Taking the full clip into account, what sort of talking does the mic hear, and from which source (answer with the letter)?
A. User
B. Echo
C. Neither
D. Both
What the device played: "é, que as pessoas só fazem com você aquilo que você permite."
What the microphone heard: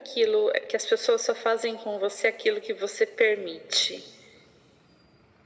B